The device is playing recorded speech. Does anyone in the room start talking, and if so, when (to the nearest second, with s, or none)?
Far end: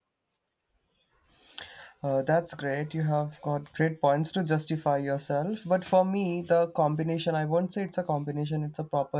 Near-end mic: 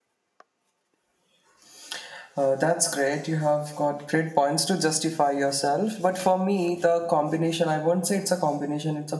none